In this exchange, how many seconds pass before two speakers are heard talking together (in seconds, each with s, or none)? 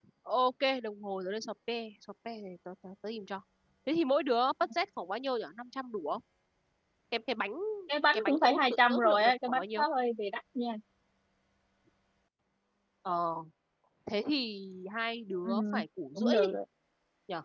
8.1 s